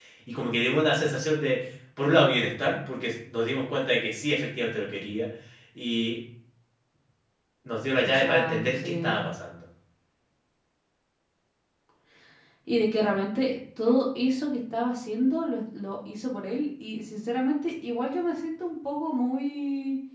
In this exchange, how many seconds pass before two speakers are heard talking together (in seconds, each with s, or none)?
8.0 s